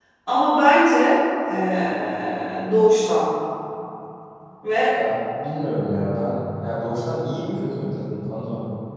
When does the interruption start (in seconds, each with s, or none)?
none